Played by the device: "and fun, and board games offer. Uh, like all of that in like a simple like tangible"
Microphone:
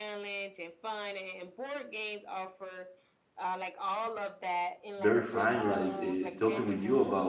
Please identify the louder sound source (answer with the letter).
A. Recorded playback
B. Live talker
B